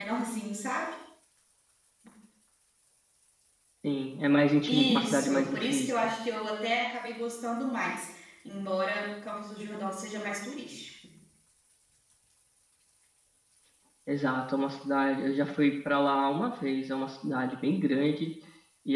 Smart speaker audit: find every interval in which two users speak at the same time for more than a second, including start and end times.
4.7-5.9

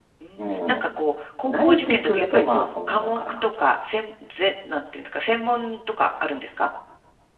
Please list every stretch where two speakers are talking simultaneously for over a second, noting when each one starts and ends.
1.4-3.5

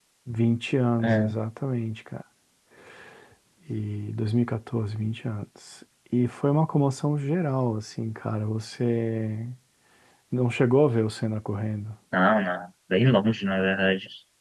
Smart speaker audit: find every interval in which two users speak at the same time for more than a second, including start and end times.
none

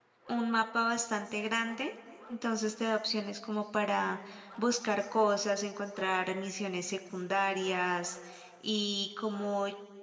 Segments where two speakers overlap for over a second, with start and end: none

